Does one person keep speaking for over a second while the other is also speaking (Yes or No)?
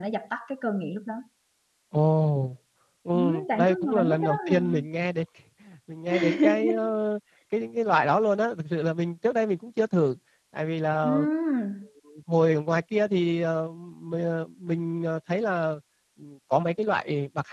Yes